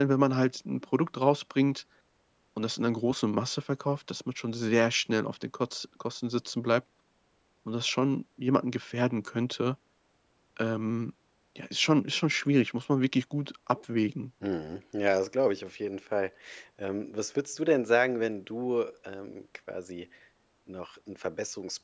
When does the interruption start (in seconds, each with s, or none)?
none